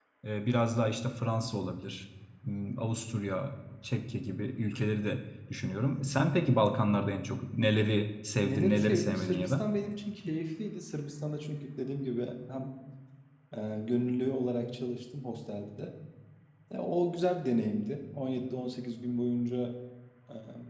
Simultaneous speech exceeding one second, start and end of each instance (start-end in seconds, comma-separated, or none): 8.4-9.7